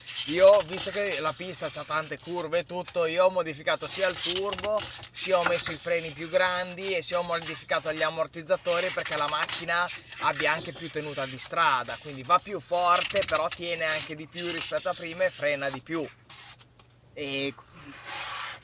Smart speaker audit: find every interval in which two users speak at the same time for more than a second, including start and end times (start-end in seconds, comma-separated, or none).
none